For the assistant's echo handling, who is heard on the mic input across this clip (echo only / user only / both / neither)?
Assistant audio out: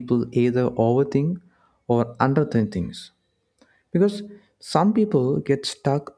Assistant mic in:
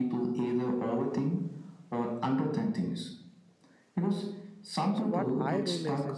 both